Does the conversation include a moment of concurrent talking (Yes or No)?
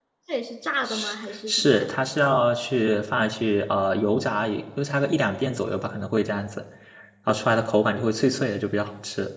Yes